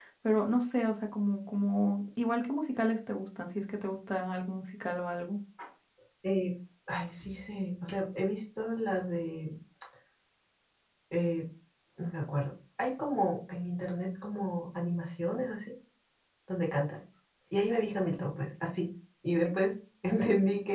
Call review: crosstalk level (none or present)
none